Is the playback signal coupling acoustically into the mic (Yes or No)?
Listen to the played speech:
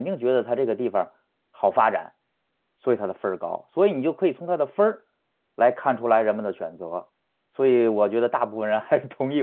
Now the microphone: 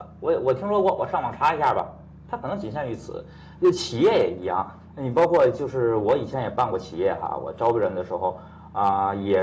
No